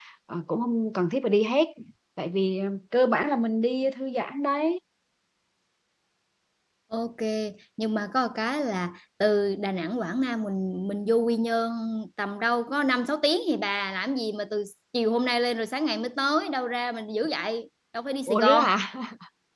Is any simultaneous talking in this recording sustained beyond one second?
No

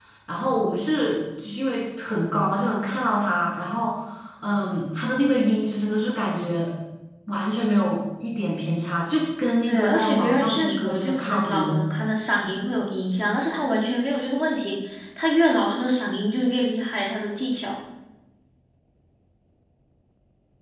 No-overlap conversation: No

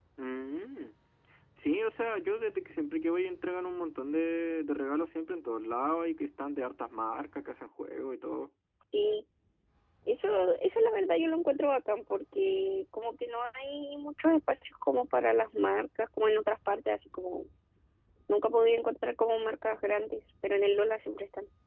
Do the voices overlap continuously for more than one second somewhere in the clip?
No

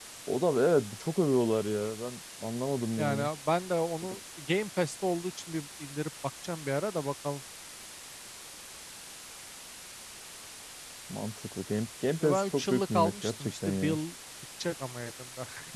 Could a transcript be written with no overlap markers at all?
No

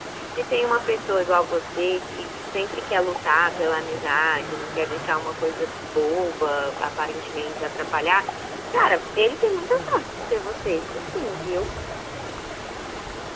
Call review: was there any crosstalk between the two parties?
No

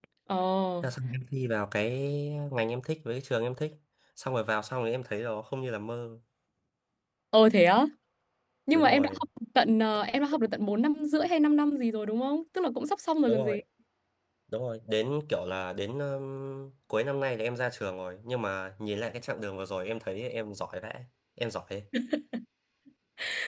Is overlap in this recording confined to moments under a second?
Yes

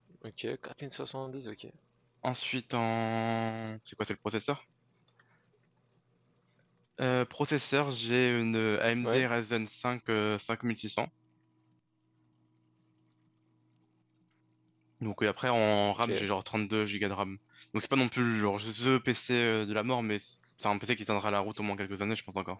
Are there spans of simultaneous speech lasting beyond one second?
No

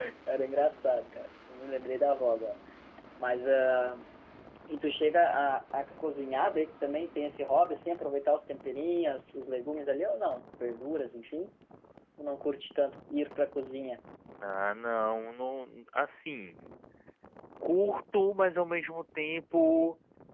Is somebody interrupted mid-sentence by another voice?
No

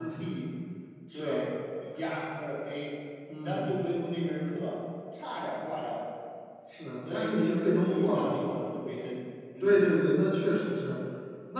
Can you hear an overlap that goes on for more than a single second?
Yes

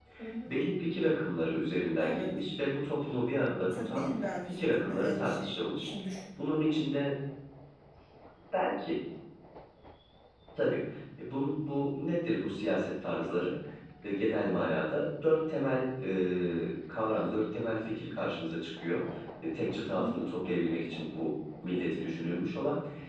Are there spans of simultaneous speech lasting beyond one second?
Yes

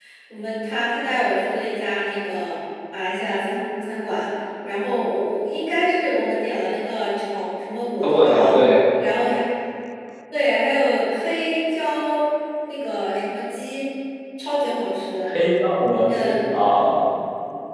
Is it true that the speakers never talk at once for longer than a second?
Yes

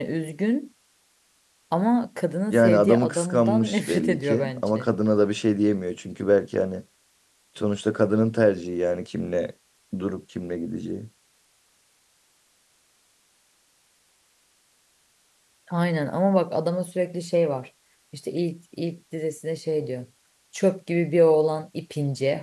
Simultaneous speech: Yes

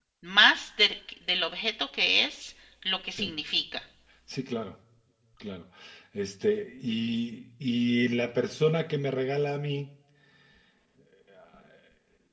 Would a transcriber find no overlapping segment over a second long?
Yes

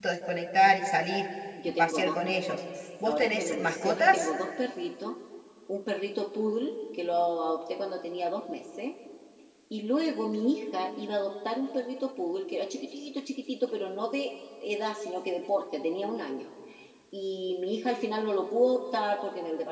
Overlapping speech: Yes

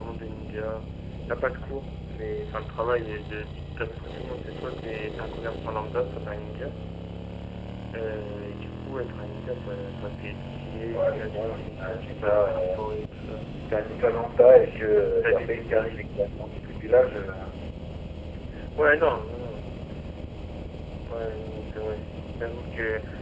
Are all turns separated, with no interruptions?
No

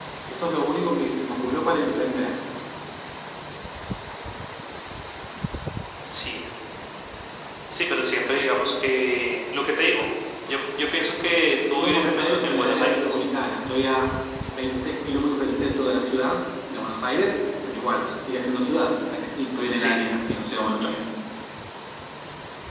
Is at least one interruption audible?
Yes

